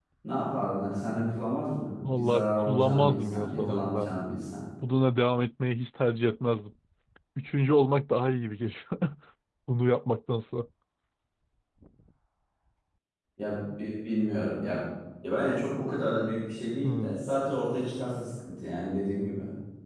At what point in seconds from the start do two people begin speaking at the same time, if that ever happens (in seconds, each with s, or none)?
2.2 s